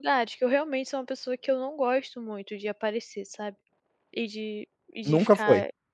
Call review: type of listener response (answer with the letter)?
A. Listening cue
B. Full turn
A